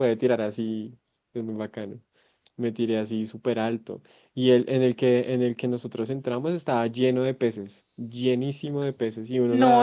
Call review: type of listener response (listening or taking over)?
taking over